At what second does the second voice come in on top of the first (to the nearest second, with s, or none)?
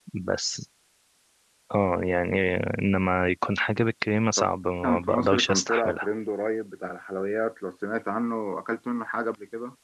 5 s